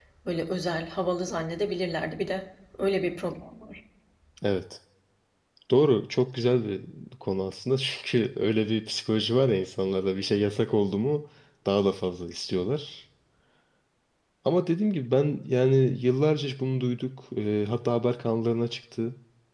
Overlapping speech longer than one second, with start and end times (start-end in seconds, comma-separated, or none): none